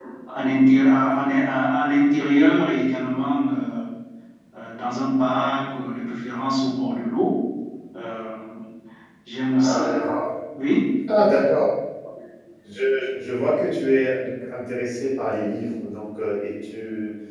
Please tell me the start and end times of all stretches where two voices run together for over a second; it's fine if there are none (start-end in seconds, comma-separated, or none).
none